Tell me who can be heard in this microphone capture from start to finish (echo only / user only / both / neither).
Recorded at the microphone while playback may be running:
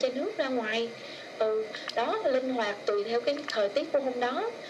echo only